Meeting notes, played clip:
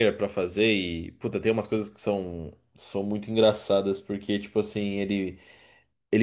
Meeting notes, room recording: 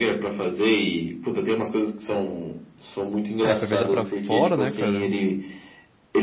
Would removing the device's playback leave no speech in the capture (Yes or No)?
No